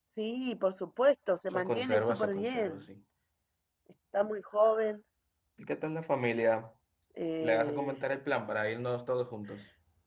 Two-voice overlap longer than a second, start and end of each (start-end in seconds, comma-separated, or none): 1.5-2.8